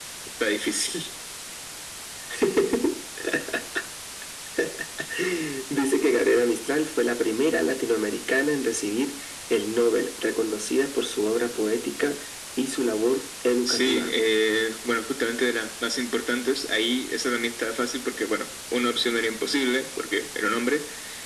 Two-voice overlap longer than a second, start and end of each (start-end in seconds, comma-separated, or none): none